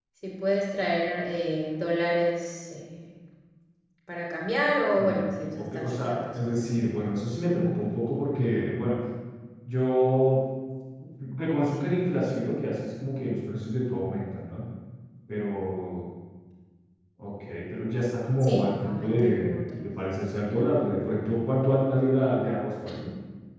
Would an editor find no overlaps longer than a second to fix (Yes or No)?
No